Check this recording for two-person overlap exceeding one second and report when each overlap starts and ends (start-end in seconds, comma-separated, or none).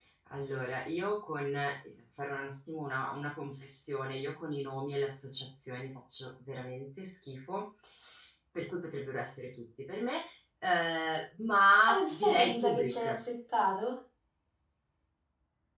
11.9-13.2